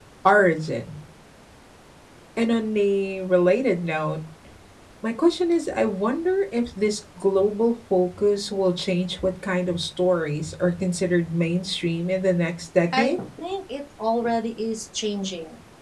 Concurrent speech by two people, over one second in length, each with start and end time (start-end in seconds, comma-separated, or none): none